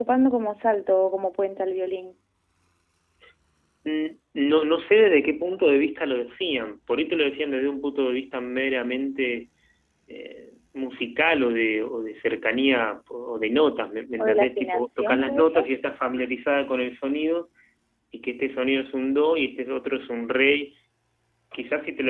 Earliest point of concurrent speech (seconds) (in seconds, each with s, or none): 14.2 s